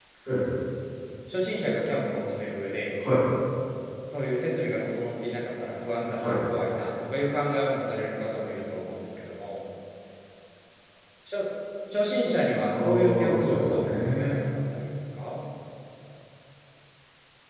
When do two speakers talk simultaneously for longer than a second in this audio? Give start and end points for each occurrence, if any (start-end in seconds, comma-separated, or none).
12.7-14.4